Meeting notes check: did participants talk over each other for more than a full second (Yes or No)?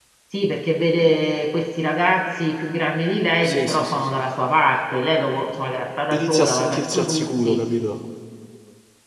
Yes